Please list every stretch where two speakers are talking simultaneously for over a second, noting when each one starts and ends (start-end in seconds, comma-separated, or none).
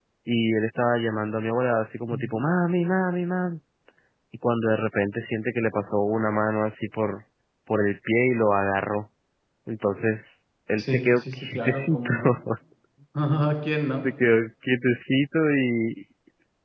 10.8-12.1